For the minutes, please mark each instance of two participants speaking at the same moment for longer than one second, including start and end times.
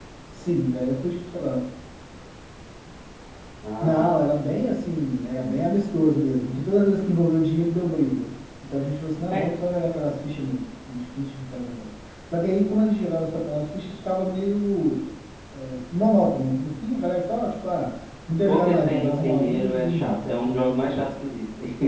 18.5-21.2

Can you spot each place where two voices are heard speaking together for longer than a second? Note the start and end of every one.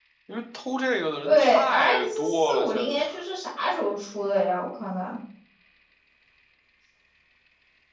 1.2-3.0

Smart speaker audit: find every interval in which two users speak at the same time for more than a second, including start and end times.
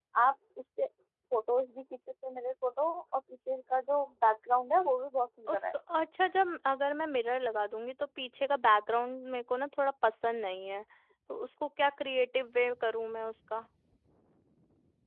none

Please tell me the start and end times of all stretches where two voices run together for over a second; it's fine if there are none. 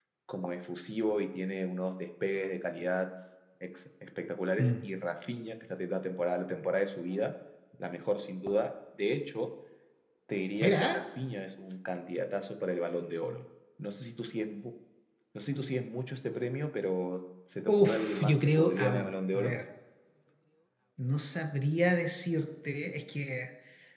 17.7-19.6

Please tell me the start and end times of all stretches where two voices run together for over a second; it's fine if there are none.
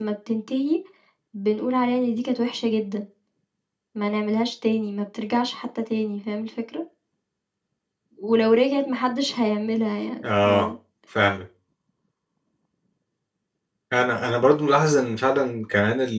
none

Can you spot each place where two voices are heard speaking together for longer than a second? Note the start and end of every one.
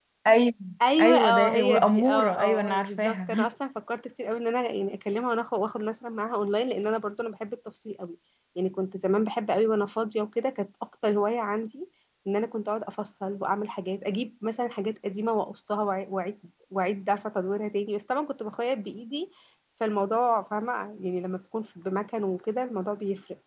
1.0-3.5

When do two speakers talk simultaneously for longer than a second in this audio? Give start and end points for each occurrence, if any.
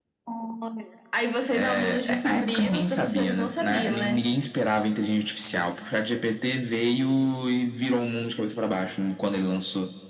1.5-4.3

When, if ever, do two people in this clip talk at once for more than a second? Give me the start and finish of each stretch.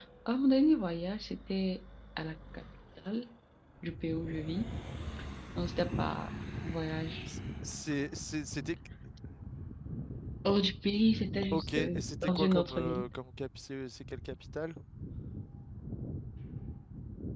11.5-13.1

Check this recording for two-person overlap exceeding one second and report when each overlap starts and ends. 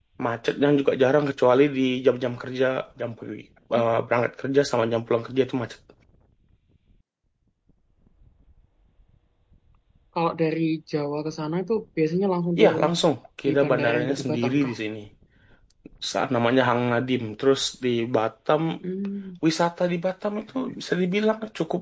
13.4-14.7

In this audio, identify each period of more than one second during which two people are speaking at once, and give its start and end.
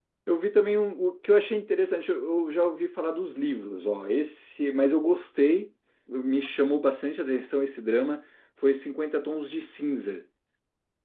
none

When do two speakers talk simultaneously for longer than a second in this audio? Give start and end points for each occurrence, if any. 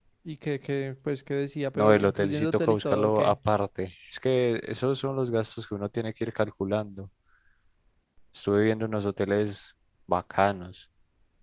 1.8-3.4

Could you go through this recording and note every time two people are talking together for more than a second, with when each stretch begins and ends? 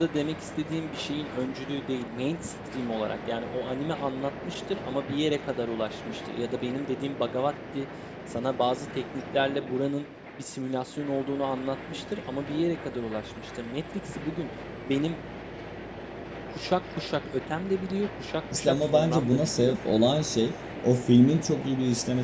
18.5-19.7

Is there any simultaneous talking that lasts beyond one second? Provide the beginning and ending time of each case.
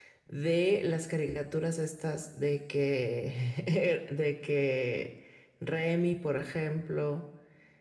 none

